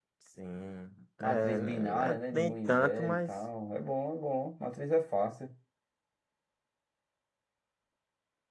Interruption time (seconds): 1.2 s

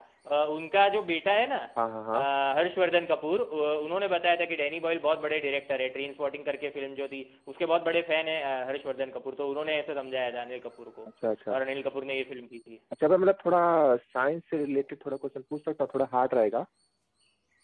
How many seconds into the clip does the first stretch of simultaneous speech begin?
none

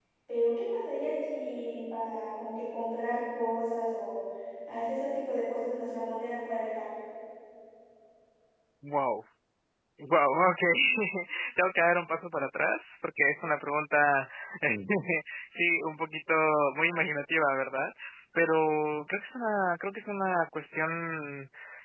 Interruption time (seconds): none

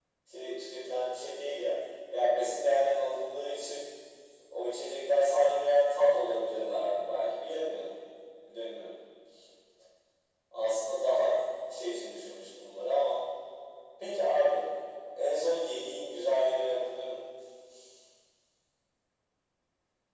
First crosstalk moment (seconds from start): none

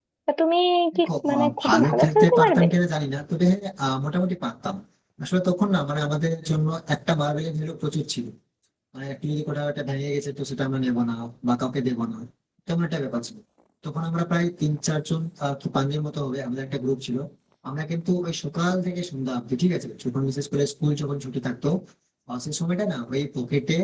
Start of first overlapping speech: 1.1 s

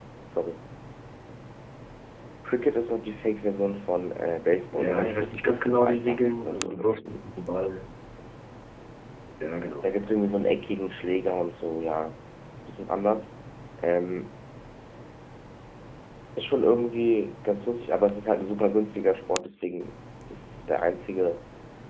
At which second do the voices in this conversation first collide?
4.7 s

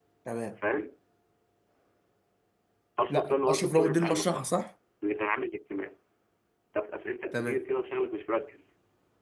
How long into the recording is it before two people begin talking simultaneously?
3.1 s

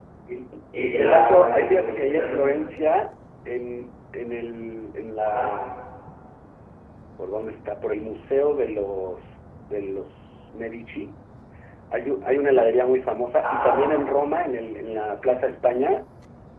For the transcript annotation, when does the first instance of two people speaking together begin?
0.8 s

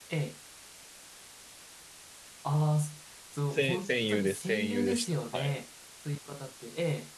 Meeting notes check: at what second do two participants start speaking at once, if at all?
3.5 s

